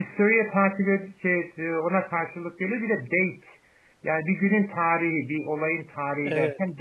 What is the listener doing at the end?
listening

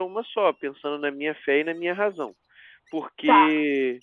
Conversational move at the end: listening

